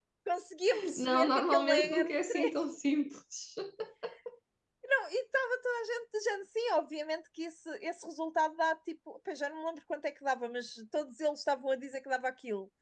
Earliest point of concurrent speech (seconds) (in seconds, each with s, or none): 0.9 s